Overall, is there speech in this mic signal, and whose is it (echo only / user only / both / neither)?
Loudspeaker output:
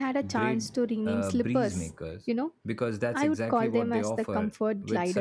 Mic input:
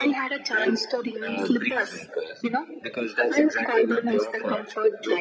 echo only